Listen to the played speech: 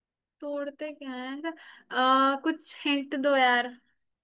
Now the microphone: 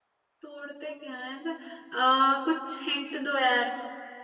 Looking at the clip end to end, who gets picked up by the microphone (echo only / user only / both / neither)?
echo only